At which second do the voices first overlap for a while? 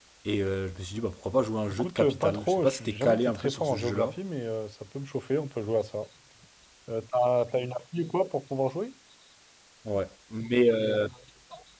2 s

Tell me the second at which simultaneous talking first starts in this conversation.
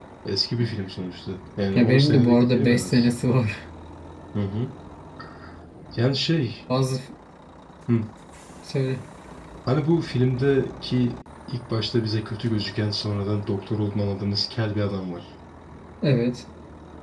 2 s

